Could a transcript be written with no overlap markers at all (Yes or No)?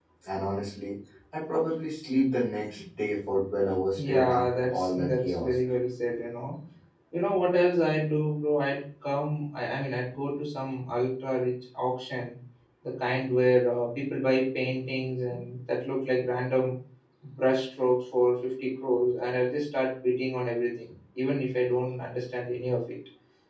No